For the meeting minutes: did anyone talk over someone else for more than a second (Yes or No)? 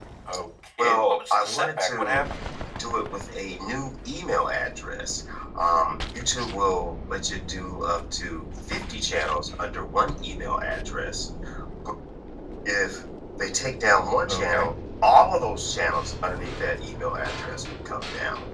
Yes